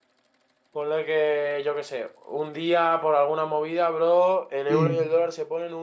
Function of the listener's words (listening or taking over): listening